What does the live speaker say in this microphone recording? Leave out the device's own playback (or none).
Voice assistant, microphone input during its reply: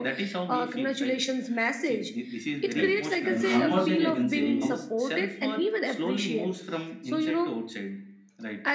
right and one more thing i can say is